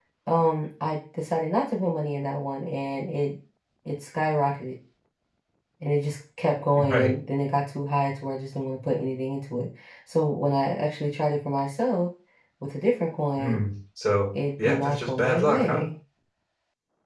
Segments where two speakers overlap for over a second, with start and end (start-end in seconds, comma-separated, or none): 14.6-15.8